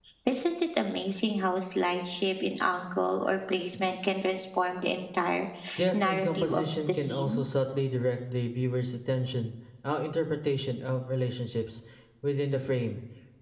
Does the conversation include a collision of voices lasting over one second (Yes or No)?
Yes